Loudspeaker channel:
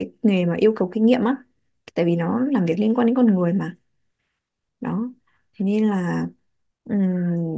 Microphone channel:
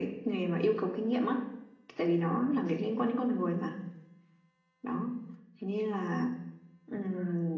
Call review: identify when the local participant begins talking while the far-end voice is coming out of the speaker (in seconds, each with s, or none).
none